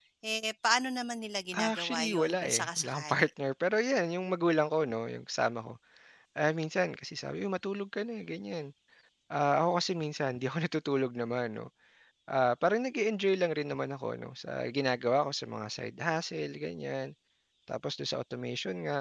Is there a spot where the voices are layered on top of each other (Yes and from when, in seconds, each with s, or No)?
Yes, from 1.5 s